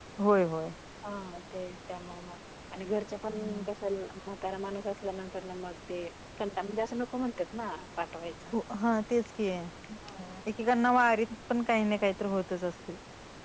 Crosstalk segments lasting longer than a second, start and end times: none

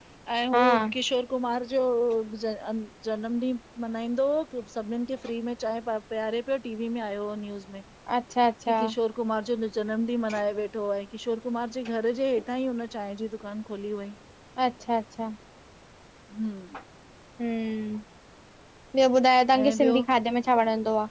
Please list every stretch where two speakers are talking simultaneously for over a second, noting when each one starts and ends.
none

